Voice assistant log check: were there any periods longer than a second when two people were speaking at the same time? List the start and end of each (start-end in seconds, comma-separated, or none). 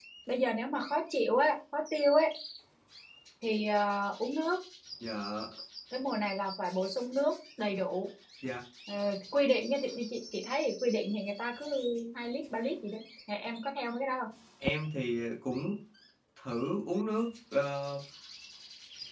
none